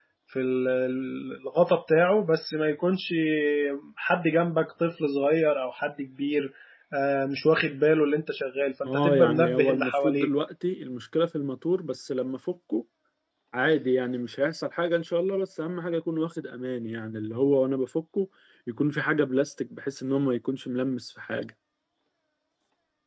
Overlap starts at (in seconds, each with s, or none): 8.8 s